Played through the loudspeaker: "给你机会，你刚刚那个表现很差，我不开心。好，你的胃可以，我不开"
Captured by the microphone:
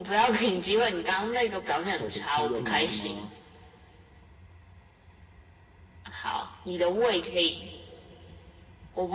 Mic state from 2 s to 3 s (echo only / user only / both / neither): both